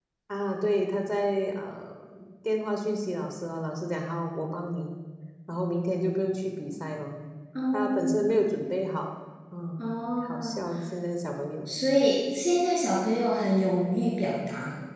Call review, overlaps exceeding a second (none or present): none